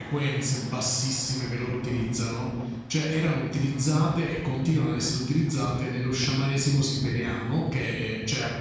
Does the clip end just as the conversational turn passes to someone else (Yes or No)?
No